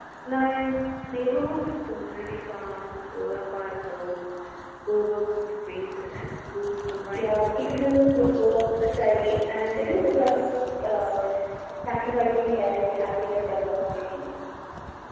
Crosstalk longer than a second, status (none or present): present